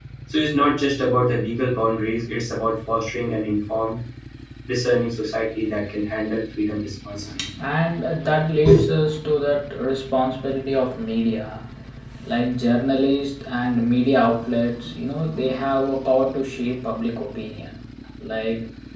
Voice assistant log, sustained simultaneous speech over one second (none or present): none